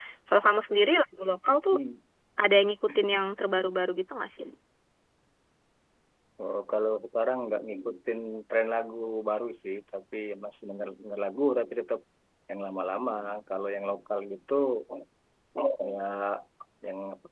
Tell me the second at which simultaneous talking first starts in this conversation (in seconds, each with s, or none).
none